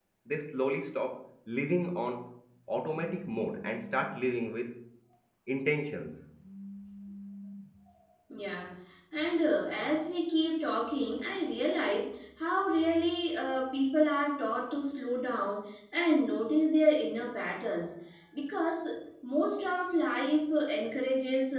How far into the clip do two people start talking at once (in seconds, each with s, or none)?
none